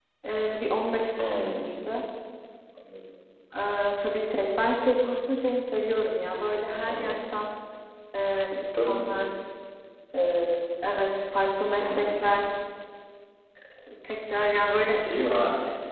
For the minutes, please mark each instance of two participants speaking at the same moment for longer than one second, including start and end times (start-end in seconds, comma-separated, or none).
none